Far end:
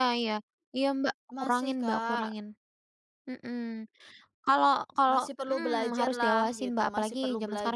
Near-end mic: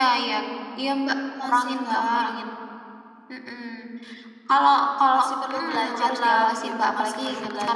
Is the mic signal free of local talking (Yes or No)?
Yes